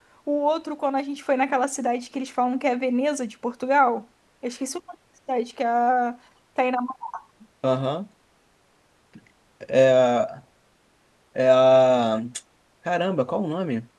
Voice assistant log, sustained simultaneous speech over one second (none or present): none